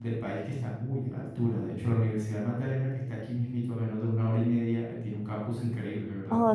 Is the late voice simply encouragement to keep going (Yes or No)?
No